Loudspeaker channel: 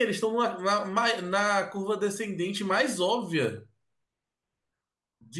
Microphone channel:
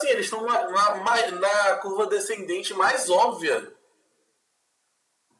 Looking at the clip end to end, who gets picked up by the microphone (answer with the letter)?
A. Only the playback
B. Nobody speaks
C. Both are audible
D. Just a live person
A